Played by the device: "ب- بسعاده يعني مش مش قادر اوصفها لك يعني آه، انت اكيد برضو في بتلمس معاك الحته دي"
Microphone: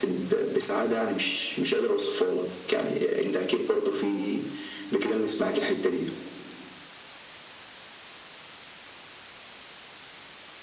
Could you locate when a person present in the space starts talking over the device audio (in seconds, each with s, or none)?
none